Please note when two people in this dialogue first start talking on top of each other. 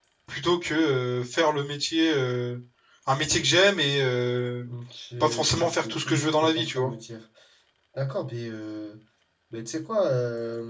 5.2 s

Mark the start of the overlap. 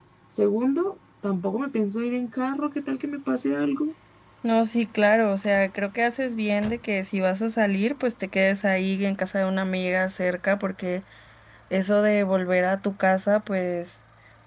none

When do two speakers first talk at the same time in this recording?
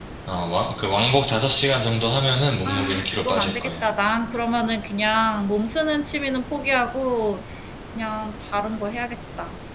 2.6 s

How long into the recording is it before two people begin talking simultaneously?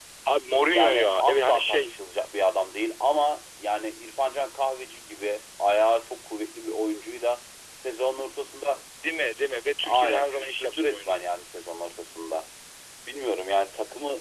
0.6 s

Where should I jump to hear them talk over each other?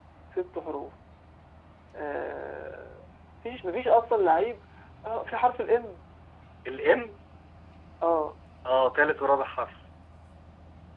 none

